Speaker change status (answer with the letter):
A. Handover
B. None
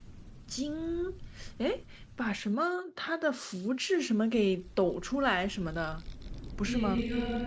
A